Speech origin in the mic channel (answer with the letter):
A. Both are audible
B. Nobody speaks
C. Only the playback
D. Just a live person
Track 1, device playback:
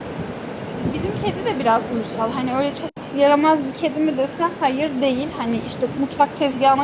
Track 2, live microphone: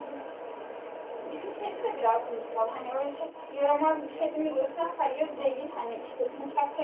A